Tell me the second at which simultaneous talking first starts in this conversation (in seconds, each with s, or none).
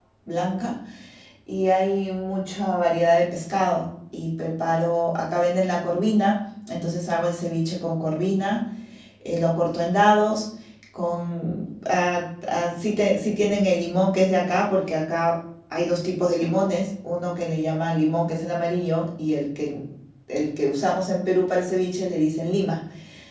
none